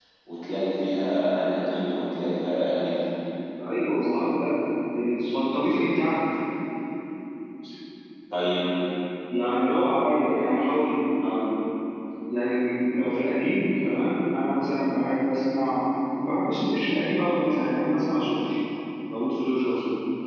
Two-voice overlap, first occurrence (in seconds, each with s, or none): none